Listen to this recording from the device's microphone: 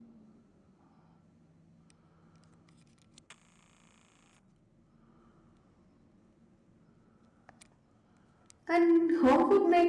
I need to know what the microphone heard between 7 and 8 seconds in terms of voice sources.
neither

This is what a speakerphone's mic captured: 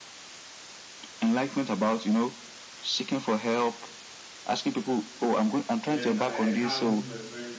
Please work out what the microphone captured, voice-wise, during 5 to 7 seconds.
both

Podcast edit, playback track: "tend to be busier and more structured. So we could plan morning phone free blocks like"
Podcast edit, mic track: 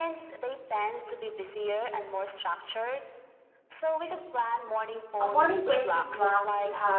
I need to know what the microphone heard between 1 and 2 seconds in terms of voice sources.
echo only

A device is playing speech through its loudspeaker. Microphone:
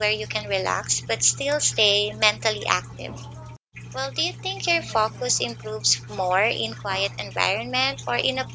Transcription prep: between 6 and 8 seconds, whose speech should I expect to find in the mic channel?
user only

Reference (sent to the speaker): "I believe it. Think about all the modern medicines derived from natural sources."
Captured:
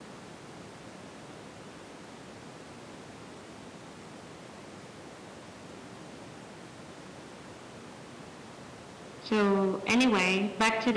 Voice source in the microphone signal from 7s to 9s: neither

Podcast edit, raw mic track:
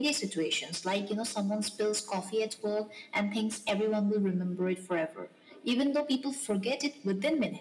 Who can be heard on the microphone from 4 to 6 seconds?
echo only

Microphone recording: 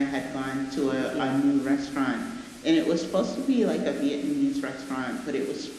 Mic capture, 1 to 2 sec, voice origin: both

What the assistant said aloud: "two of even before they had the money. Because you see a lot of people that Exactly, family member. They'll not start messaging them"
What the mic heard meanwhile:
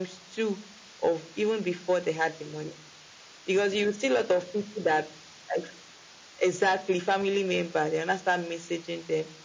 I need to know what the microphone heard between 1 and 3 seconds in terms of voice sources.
echo only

